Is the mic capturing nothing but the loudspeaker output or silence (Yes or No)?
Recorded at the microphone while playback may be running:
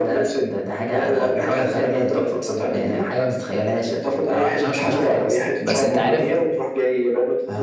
No